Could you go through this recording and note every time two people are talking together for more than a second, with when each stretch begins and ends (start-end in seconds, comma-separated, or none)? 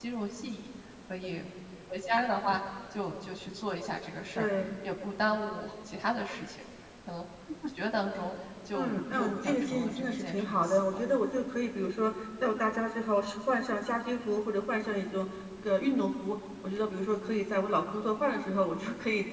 8.7-11.0